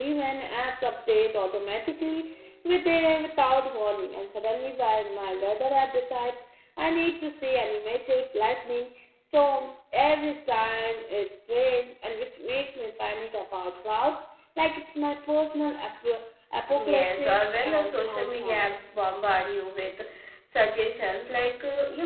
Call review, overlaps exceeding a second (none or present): present